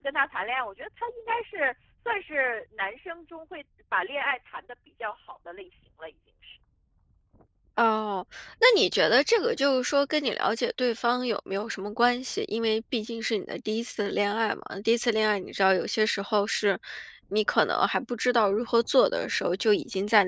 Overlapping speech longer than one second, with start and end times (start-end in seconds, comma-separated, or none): none